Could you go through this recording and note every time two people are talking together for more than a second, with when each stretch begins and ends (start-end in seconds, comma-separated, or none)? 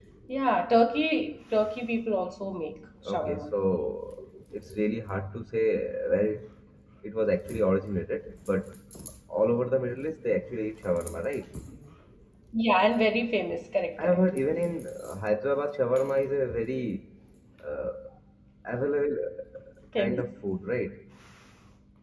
none